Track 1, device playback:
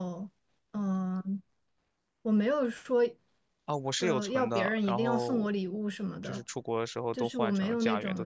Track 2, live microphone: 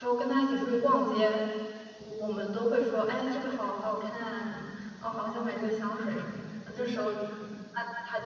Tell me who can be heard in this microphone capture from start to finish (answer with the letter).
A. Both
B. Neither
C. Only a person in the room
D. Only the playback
C